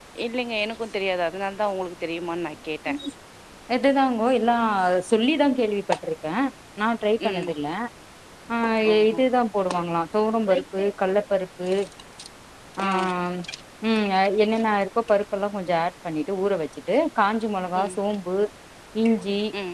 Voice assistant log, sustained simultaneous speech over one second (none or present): none